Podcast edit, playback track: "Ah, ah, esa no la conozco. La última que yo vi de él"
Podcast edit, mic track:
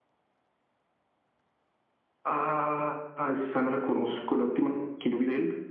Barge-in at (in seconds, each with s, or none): none